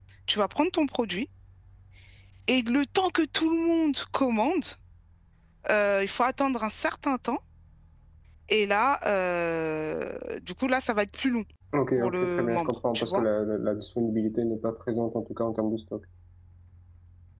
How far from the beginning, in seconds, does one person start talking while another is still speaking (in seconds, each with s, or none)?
12.0 s